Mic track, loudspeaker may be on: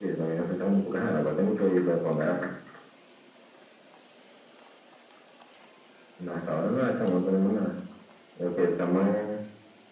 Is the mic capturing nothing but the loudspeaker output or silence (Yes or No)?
Yes